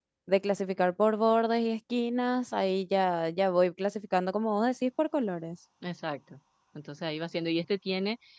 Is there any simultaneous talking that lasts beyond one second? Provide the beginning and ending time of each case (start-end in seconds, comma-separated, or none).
none